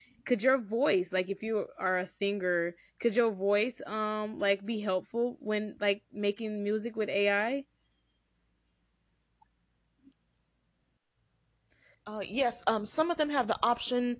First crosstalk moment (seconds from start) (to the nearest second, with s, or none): none